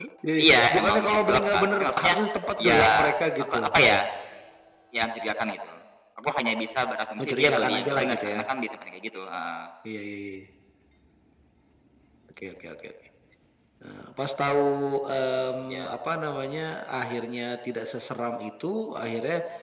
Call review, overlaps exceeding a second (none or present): present